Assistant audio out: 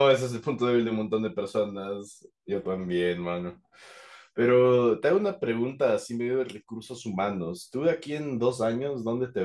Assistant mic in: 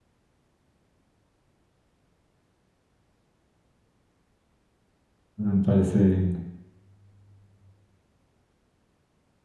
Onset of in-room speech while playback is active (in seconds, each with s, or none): 5.4 s